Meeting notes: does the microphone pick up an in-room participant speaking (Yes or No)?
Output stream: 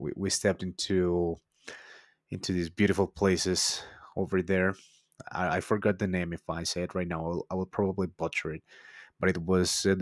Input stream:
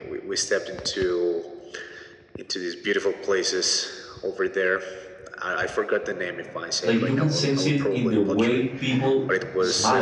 Yes